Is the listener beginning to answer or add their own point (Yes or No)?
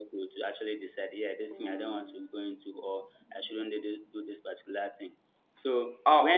Yes